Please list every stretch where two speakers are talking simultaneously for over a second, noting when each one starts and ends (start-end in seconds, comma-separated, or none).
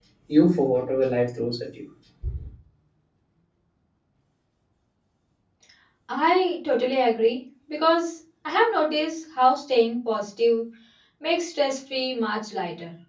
none